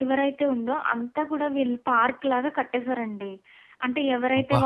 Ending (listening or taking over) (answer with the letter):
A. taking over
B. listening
B